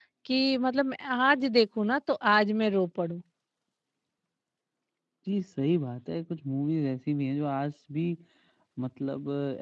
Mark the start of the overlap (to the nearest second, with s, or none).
none